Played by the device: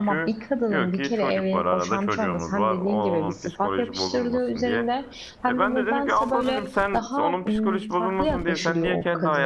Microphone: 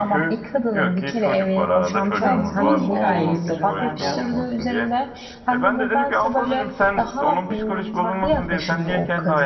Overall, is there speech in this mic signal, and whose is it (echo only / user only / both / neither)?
both